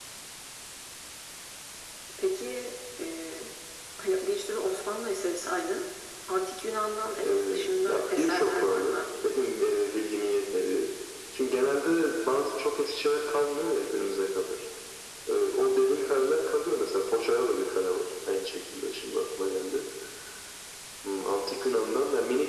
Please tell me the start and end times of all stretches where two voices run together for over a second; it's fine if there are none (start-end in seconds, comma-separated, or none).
7.2-9.1